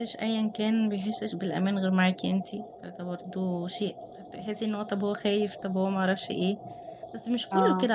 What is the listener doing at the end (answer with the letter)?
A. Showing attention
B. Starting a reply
A